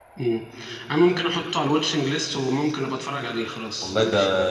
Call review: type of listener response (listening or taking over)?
taking over